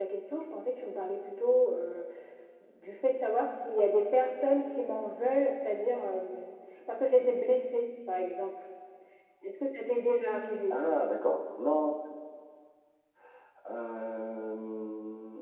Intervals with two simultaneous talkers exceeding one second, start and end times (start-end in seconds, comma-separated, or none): none